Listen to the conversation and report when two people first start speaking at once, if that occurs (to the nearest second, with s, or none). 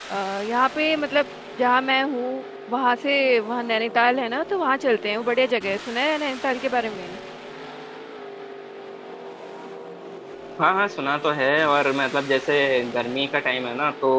none